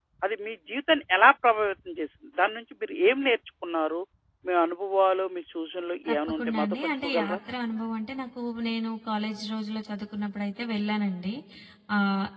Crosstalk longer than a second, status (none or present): present